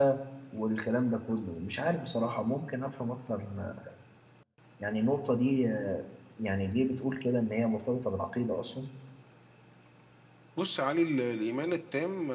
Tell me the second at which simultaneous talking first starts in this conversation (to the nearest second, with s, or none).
none